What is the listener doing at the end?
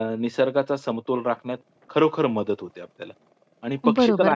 taking over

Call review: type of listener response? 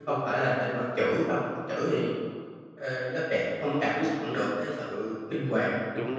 taking over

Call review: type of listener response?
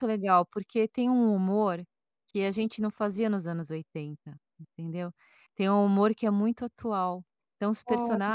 listening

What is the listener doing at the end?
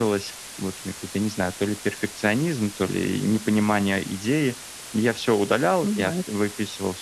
listening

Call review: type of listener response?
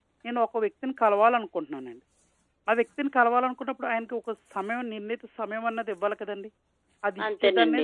taking over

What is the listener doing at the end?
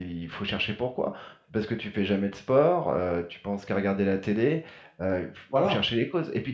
listening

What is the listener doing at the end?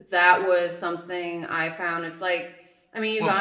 listening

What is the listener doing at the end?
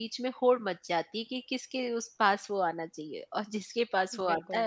listening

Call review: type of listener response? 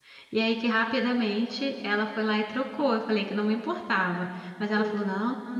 listening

